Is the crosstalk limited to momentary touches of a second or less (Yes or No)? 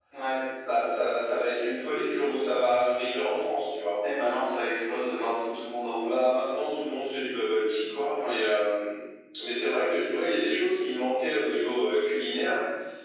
Yes